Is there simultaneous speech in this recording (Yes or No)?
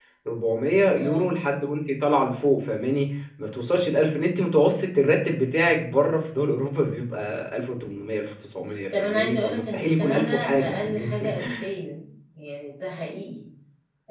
Yes